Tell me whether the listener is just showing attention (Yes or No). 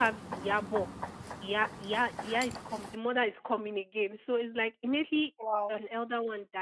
Yes